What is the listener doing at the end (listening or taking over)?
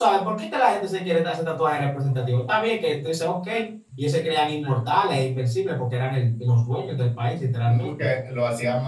taking over